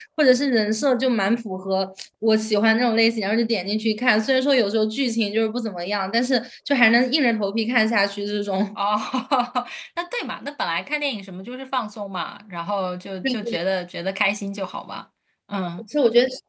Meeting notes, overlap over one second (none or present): none